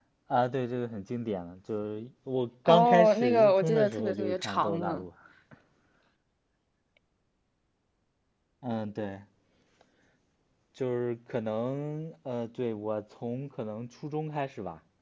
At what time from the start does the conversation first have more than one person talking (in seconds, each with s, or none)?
2.7 s